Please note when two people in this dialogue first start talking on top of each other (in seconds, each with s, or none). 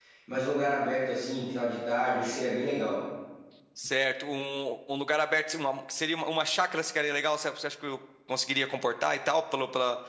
none